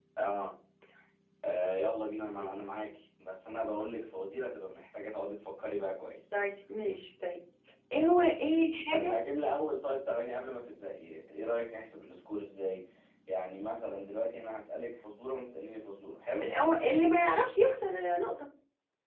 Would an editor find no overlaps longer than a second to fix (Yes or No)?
Yes